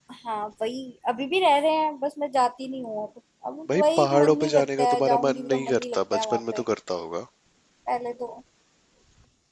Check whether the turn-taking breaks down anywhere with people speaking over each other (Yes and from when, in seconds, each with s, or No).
Yes, from 3.7 s